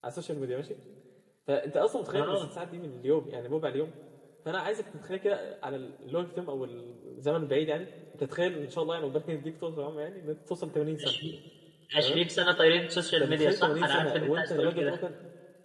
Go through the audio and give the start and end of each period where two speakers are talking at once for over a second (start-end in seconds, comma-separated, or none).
13.1-15.0